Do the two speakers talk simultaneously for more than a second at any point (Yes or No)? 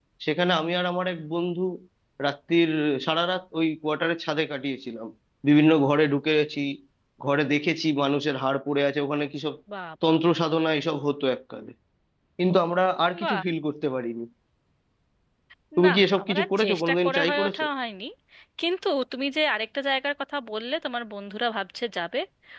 Yes